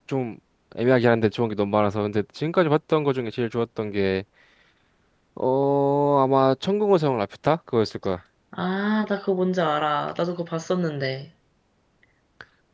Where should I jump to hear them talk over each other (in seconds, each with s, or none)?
none